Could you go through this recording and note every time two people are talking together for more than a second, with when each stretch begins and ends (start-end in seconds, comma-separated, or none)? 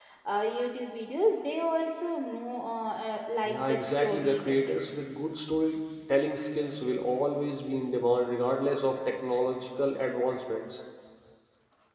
3.5-4.7